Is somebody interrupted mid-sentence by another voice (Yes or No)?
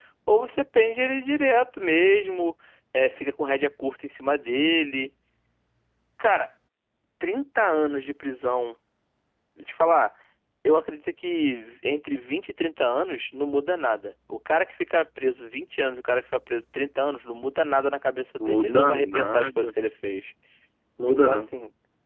Yes